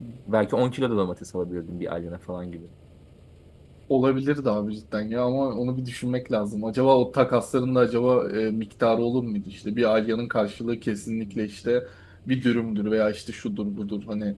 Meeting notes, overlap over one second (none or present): none